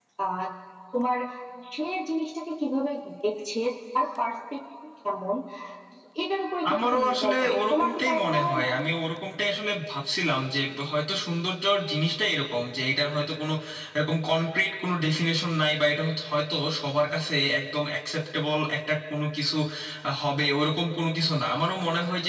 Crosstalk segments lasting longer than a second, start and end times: 6.7-8.7

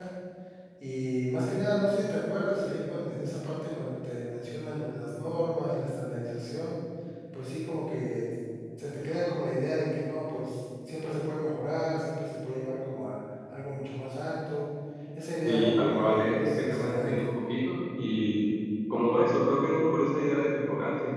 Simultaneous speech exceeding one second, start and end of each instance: 15.4-17.3

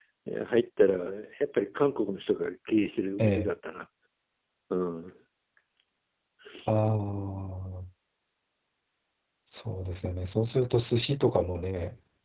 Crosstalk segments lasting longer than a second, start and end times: none

